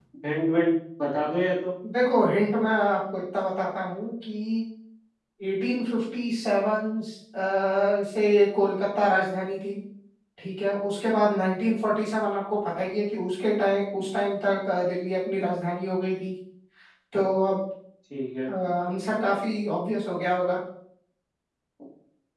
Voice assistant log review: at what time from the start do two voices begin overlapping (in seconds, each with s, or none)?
none